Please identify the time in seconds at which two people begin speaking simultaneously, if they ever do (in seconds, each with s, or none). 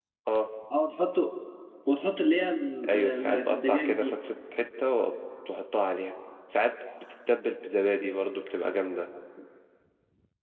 2.8 s